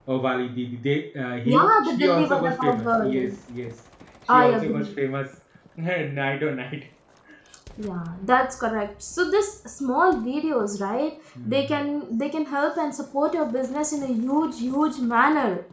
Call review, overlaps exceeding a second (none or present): present